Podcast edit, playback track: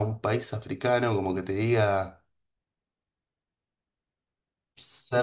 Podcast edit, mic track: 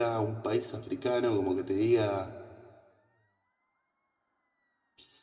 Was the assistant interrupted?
No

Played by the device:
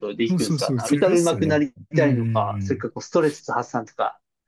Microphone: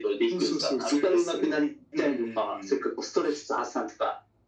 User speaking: No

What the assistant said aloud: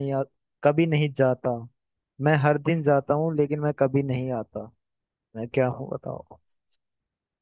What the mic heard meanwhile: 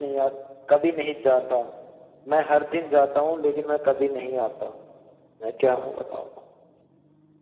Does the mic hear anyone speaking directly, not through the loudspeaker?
No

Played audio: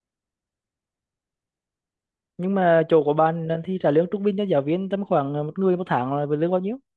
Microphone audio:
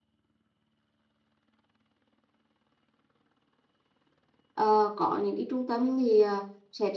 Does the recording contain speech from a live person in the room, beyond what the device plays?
Yes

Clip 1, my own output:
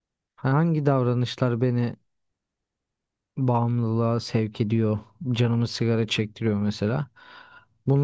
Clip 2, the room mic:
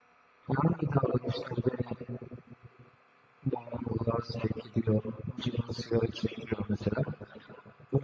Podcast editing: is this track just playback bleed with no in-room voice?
Yes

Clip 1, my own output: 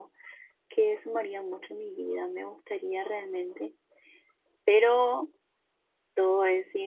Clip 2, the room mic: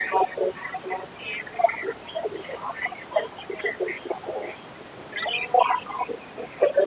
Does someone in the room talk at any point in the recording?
No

